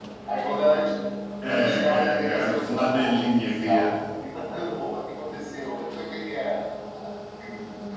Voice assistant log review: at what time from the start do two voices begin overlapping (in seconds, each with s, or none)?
1.5 s